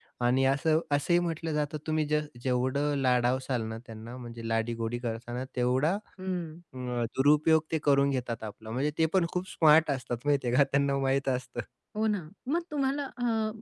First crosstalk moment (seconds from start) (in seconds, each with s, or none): none